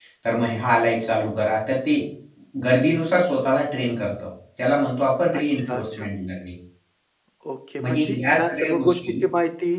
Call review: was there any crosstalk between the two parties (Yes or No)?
Yes